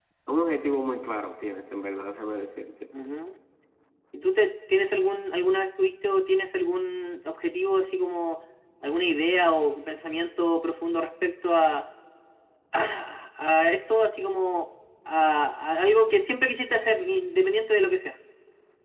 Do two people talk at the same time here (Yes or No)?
No